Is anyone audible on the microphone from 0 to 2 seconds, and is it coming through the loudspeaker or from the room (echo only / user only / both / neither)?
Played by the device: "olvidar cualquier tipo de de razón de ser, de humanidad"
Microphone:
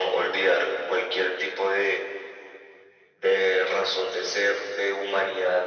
echo only